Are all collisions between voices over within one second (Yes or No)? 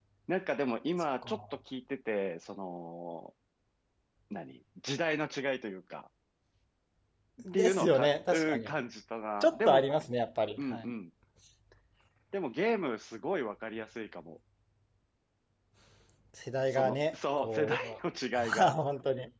No